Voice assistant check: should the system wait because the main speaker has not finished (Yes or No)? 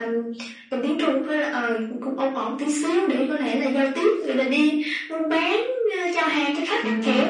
No